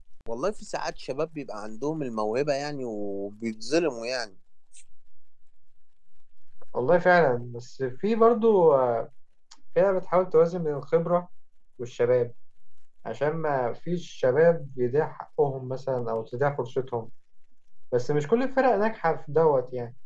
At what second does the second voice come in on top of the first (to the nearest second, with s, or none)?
none